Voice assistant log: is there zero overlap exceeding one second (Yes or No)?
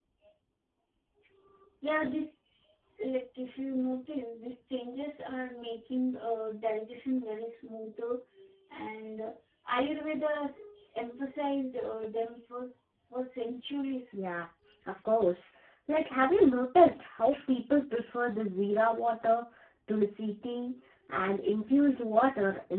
Yes